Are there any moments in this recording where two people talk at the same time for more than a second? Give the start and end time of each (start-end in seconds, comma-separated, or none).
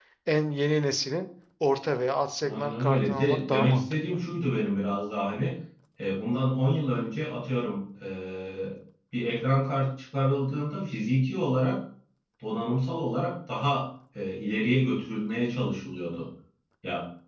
2.4-4.2